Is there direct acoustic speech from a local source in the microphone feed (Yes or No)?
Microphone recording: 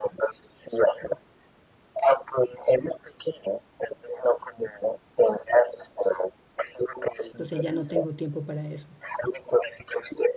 Yes